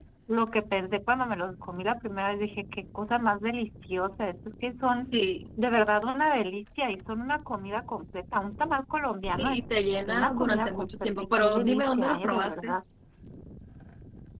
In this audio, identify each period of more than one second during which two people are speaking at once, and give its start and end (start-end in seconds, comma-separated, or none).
10.1-12.8